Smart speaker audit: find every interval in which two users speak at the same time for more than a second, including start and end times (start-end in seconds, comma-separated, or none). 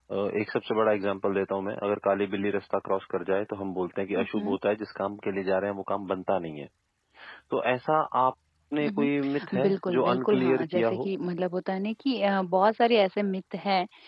9.6-11.1